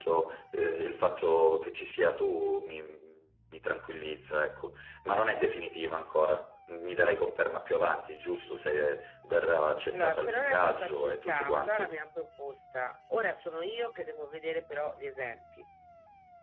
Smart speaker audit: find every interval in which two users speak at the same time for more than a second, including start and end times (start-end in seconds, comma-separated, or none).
9.9-11.9